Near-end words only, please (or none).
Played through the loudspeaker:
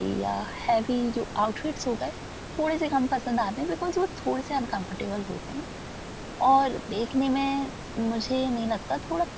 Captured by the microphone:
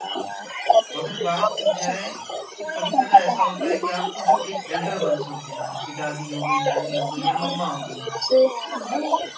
मगर बात की जाए कि कभी-कदा ऐसा होता है कि आपके जो एक एल्डर वंस होते हैं, आपकी दादी हो गई, नानी हो गई या मम्मा हो गई, तो वो